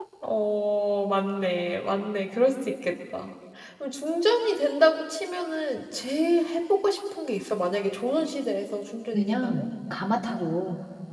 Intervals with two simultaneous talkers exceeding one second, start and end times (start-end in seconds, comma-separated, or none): none